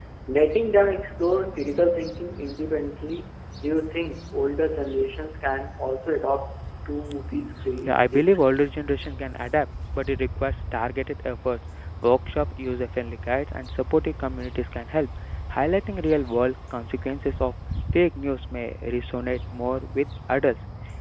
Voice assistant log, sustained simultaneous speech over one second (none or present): none